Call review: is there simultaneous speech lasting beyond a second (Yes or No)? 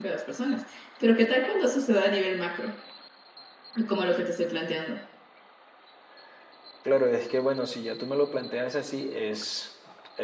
No